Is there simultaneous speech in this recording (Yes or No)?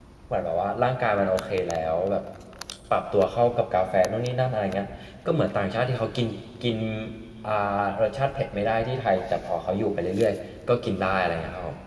No